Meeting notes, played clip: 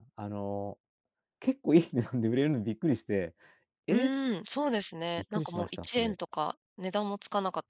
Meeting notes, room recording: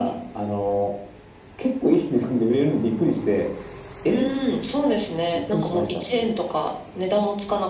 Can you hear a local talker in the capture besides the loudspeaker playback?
No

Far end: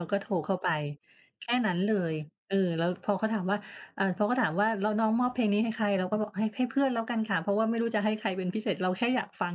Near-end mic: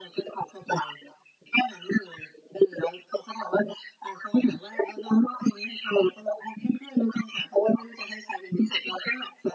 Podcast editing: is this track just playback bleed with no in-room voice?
Yes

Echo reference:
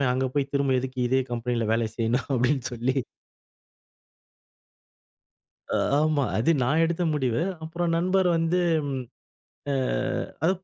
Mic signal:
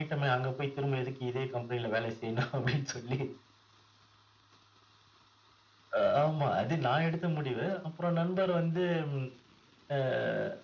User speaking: No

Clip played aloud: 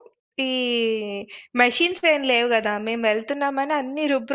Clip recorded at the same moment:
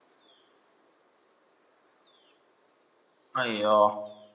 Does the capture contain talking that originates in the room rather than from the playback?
Yes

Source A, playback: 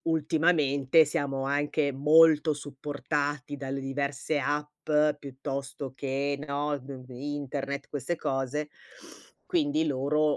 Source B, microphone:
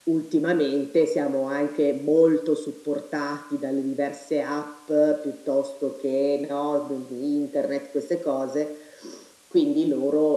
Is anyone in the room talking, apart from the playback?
No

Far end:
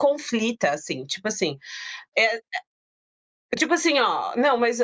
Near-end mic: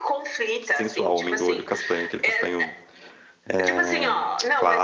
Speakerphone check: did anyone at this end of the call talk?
Yes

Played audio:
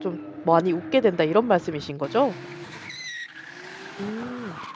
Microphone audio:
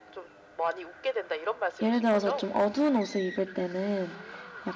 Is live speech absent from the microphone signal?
No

